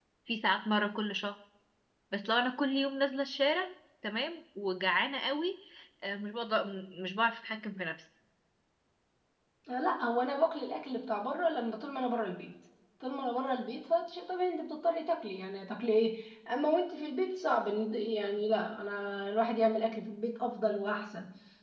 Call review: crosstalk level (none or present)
none